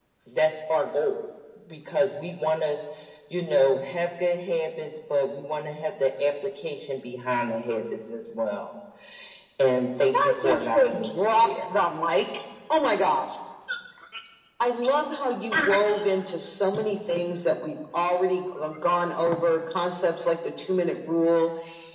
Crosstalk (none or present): present